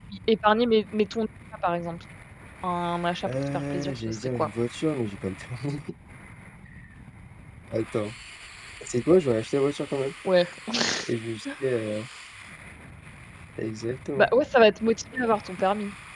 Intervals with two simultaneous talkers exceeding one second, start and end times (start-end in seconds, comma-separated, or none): 3.2-4.5